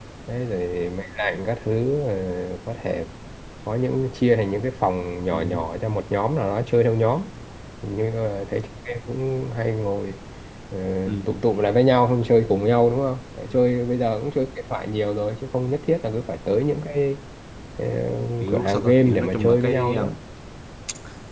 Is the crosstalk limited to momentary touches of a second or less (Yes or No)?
No